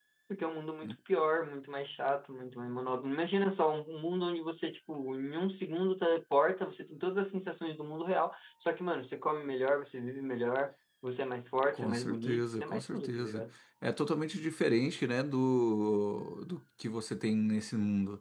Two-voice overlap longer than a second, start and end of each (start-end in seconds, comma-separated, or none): 11.7-13.4